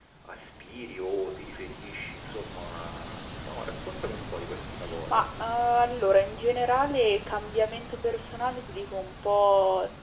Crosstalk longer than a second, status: none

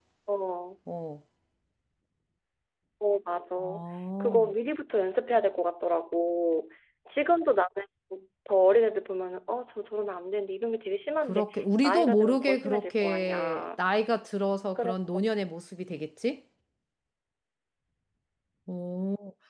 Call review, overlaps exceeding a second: present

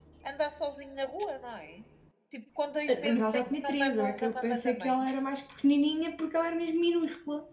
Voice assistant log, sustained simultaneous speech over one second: present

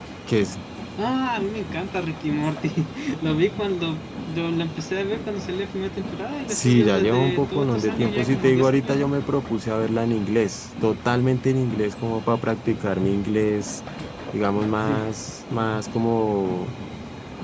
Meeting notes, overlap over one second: present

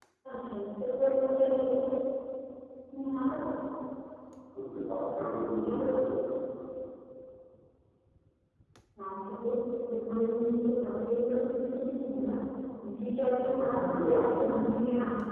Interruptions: present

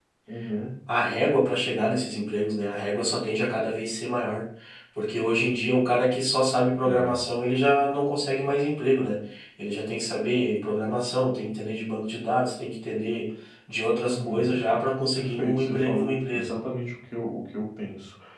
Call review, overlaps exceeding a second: present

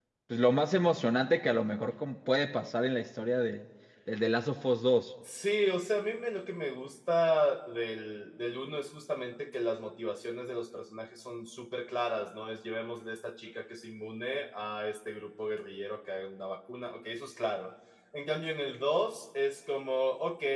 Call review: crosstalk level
none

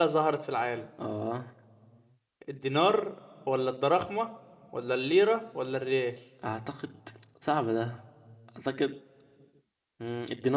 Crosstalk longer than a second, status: none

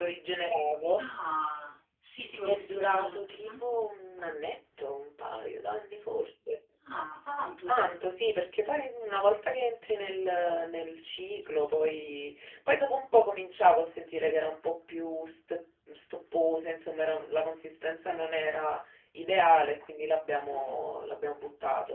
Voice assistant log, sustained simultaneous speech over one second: present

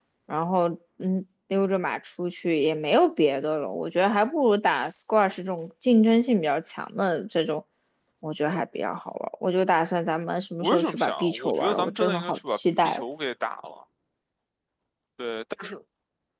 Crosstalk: present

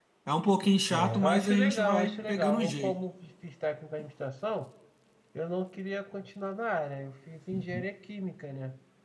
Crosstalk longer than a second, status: present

